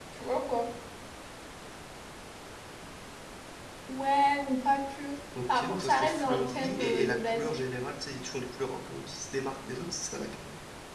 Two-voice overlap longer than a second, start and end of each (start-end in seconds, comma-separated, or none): 5.5-7.6